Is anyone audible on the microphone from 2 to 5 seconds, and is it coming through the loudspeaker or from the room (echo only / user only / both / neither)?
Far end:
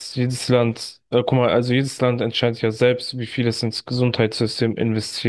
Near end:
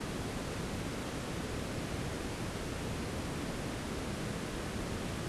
neither